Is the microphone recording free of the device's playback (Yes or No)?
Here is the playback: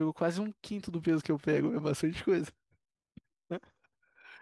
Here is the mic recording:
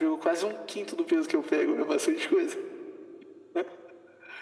No